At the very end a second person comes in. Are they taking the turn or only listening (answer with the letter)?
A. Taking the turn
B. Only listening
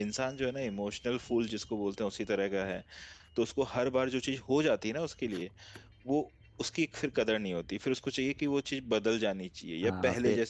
A